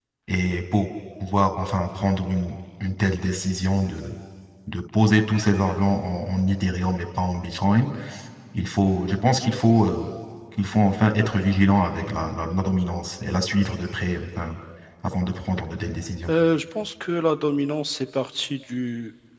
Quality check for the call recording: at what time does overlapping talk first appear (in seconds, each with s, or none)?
none